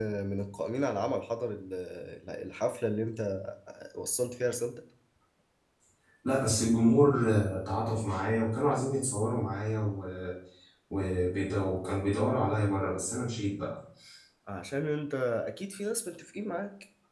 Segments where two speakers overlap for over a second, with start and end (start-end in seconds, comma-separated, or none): none